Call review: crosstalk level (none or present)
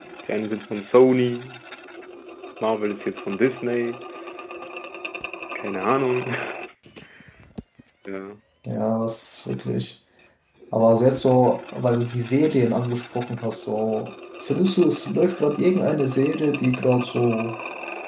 none